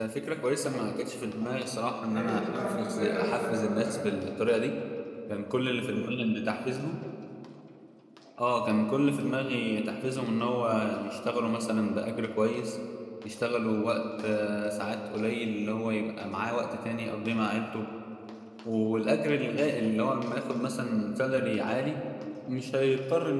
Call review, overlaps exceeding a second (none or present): present